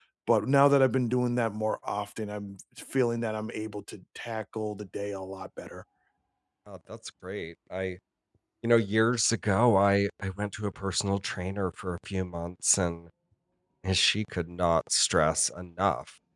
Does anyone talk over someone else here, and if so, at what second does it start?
none

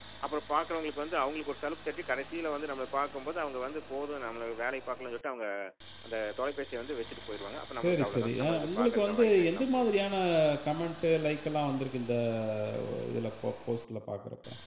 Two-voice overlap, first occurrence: 7.7 s

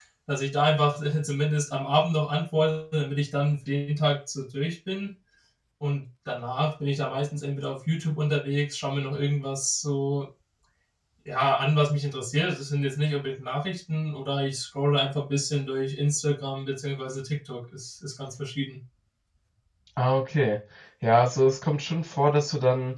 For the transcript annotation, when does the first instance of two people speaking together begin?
none

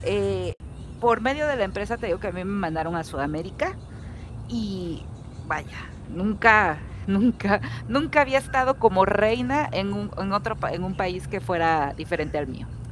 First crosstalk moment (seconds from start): none

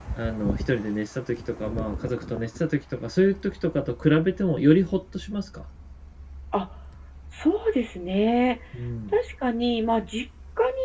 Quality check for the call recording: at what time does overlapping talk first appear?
none

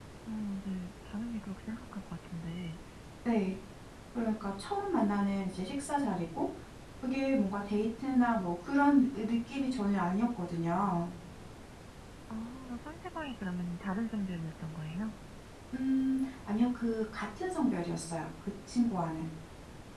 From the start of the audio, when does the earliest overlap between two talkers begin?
none

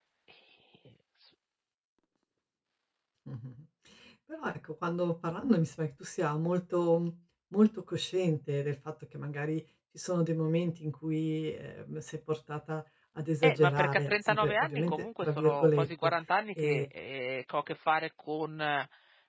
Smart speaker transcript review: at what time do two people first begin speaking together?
13.4 s

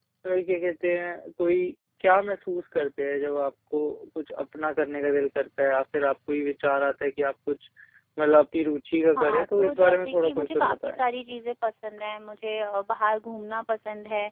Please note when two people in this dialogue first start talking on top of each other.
9.2 s

